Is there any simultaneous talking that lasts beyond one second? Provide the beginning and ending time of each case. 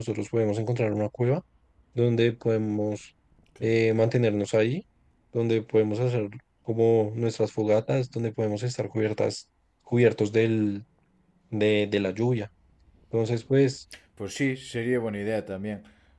none

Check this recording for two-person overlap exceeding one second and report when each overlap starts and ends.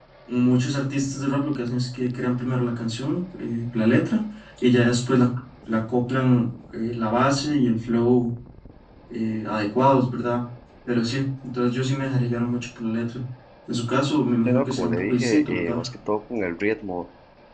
14.4-15.8

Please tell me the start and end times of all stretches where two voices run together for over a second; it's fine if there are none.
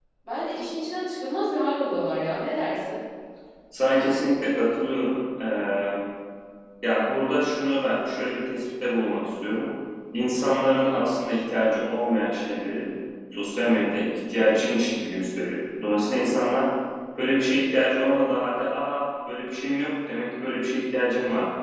none

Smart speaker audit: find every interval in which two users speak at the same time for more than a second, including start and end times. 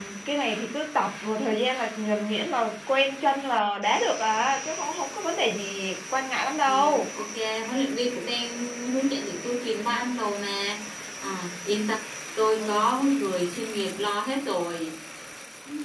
none

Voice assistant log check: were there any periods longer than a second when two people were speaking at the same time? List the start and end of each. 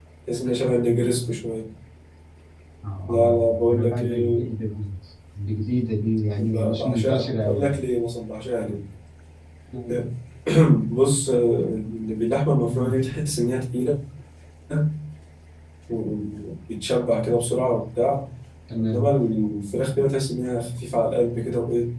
3.1-4.5, 6.4-7.7

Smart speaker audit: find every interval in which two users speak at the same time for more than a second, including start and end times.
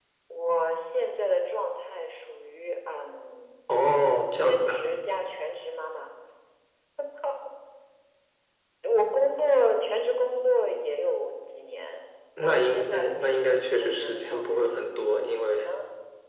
12.4-14.7

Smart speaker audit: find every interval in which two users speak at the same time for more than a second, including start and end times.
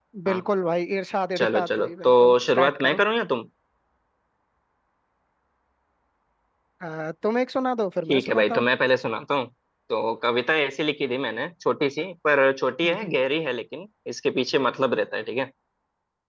1.4-3.0

